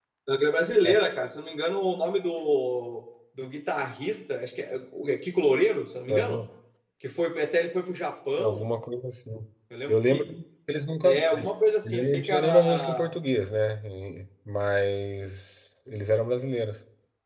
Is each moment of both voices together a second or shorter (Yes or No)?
No